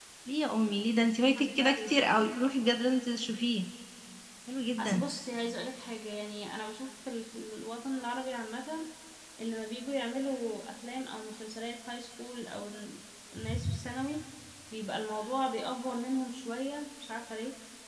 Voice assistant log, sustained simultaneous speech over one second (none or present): none